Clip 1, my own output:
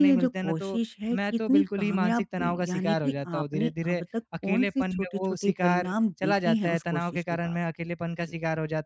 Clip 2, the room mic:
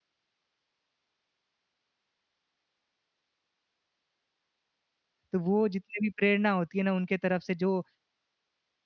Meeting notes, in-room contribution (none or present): present